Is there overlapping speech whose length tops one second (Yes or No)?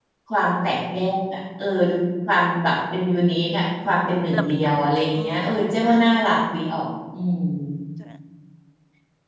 Yes